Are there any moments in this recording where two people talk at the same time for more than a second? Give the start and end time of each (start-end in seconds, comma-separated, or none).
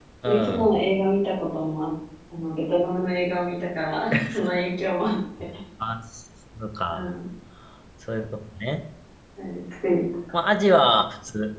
none